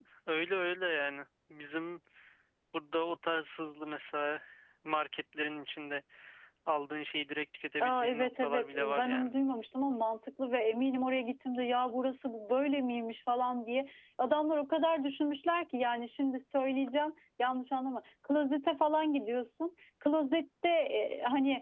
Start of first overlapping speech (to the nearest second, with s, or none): 8 s